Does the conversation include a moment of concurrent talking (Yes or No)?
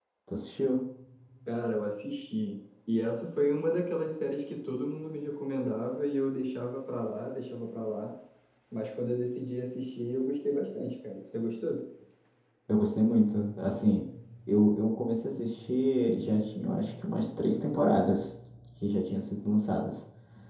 No